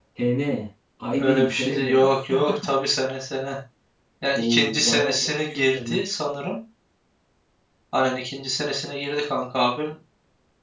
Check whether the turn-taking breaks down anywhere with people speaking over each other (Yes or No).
Yes